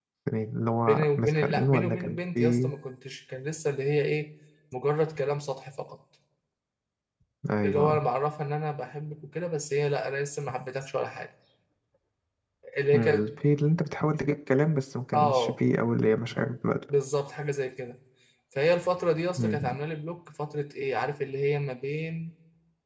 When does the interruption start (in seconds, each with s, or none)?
0.9 s